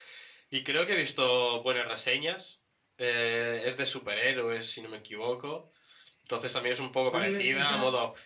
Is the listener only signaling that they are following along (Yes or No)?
Yes